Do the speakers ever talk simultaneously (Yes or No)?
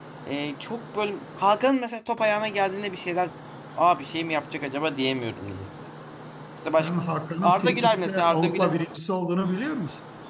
Yes